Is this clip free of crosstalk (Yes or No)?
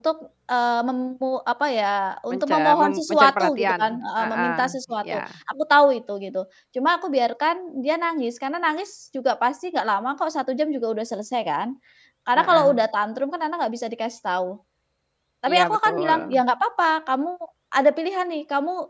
No